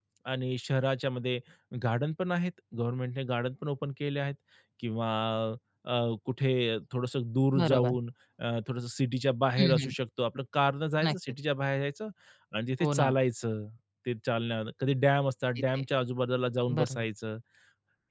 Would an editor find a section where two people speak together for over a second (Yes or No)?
No